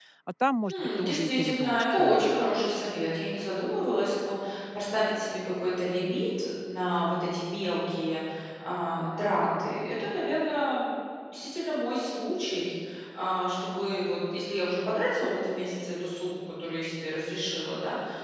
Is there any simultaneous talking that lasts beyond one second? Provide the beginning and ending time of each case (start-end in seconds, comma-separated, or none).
0.7-2.5